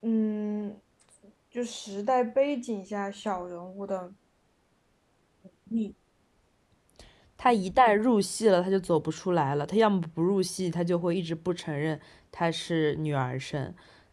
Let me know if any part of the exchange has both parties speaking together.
No

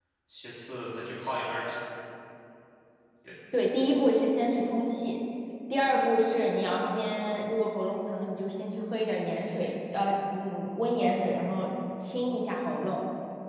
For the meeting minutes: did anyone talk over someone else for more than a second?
No

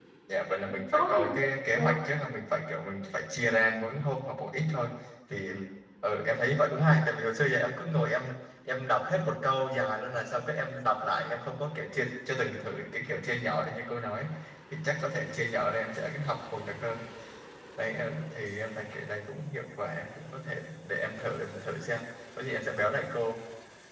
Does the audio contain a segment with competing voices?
Yes, from 0.5 s

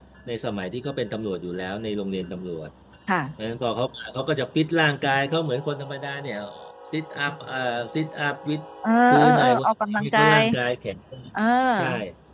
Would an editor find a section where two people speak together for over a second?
Yes, from 9.1 s

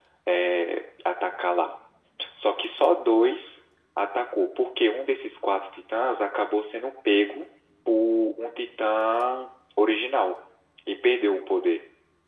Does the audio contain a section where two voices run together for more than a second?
No

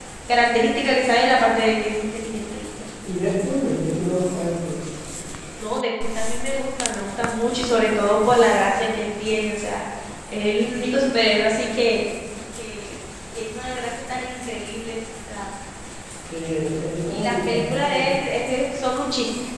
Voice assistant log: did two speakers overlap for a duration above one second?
Yes, from 17.1 s

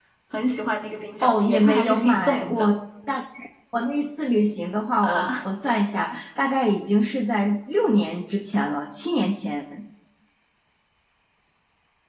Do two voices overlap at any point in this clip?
Yes, from 1.2 s

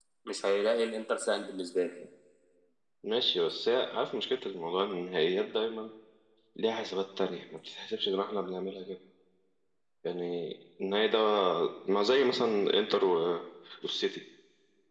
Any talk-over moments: No

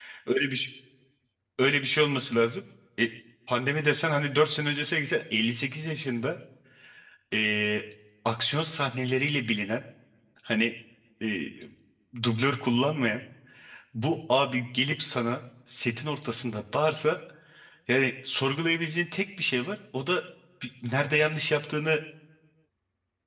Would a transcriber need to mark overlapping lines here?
No

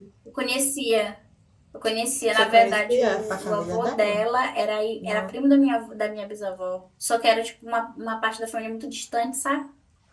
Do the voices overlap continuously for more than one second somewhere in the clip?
Yes, from 2.3 s

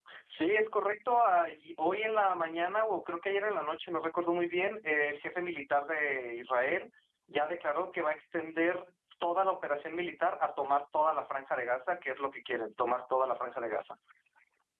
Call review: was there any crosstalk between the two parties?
No

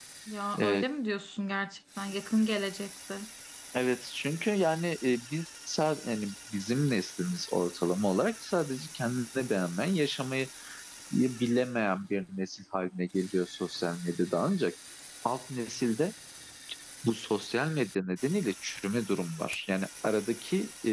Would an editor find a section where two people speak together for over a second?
No

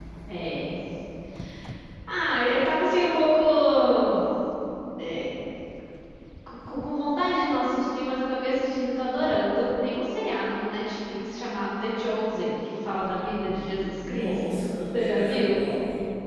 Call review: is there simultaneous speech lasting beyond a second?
Yes, from 13.3 s

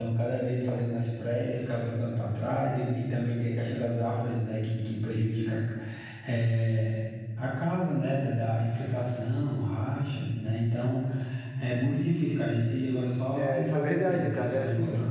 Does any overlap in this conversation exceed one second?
Yes, from 13.3 s

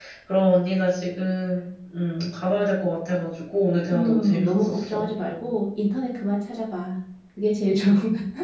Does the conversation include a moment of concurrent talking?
Yes, from 3.9 s

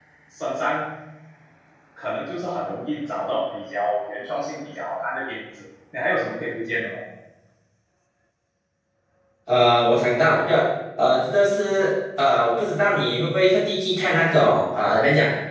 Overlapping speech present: No

